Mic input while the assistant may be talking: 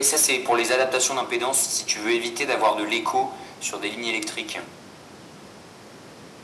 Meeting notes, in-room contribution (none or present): none